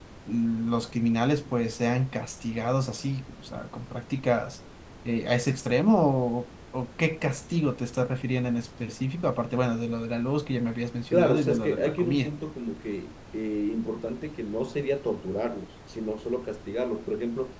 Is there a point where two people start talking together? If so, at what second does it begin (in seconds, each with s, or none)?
11.1 s